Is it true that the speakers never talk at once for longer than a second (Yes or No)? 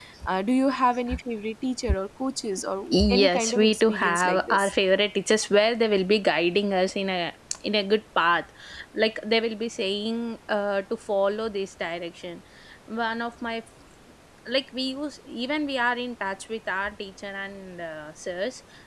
No